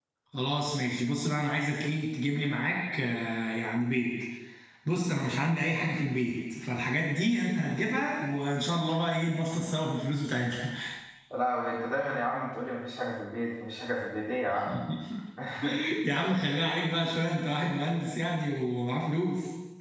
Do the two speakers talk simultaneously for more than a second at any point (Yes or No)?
No